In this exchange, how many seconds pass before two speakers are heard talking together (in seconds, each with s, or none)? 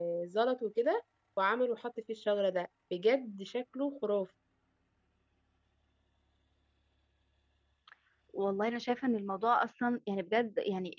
none